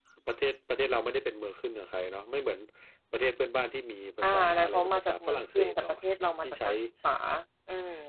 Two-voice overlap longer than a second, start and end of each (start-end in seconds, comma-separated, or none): 4.2-5.9